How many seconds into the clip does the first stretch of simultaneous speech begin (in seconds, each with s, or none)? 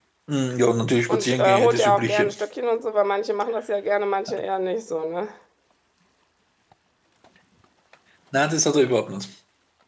1.1 s